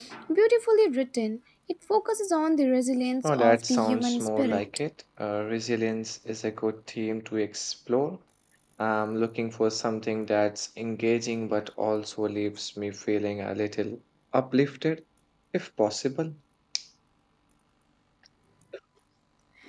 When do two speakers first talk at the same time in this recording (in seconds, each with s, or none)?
3.2 s